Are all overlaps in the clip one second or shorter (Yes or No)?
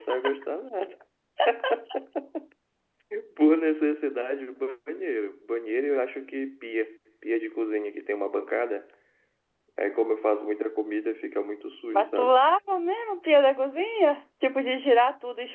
Yes